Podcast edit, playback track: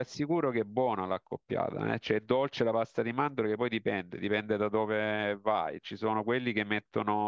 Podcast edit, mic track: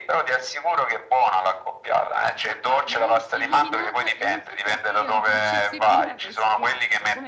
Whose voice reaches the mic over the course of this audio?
both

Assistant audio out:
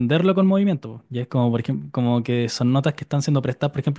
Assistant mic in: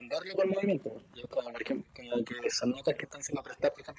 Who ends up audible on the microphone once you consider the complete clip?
echo only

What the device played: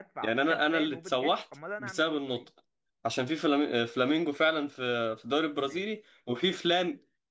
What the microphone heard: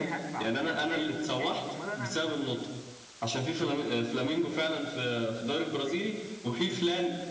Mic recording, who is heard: echo only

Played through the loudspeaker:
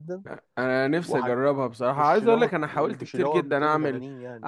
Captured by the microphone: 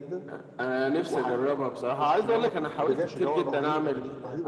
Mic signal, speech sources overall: both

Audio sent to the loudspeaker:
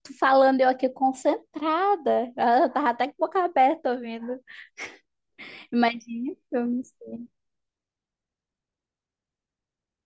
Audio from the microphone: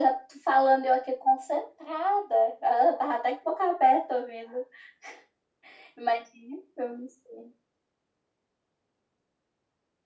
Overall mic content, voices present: echo only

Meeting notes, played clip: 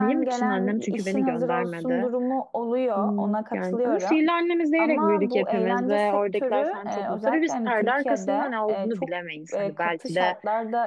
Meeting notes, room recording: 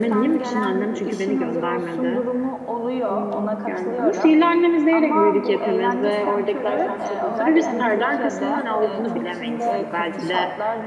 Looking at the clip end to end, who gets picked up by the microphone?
both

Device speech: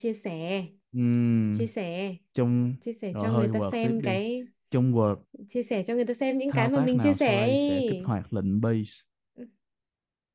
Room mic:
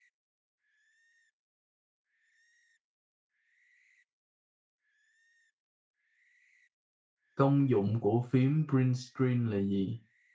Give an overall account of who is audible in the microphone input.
user only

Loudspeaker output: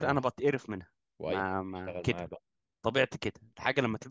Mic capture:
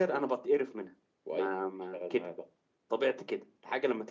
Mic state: echo only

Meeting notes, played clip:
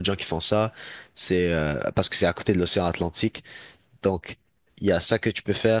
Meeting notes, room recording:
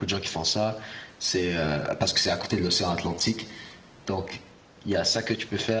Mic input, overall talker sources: echo only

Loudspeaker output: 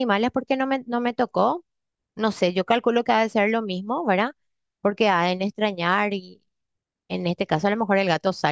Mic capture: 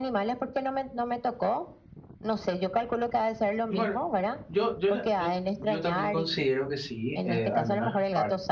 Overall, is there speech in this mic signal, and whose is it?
both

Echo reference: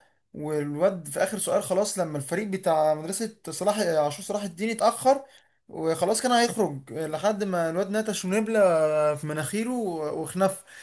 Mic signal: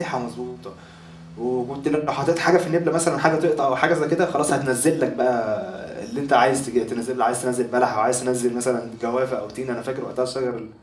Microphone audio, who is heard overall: user only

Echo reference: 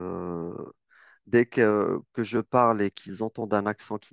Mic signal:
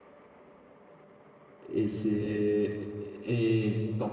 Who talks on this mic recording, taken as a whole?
user only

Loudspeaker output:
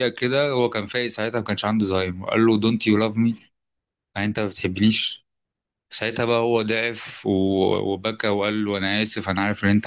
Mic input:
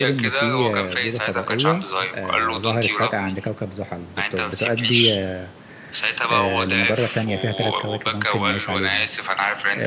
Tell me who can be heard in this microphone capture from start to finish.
both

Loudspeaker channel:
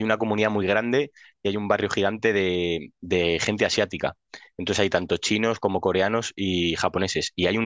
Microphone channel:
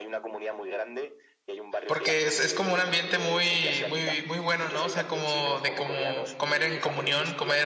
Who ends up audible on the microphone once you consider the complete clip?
both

